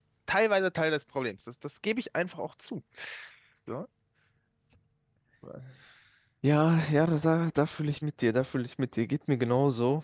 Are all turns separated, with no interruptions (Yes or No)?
Yes